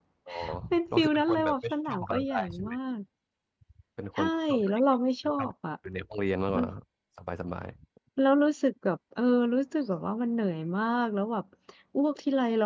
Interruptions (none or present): present